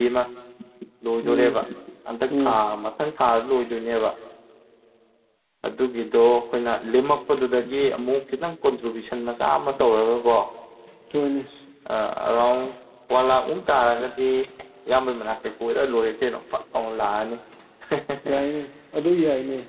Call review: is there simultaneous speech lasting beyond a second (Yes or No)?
No